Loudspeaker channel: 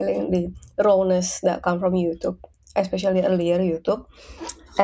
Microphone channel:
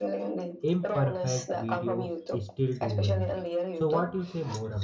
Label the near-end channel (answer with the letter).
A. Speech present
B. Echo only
A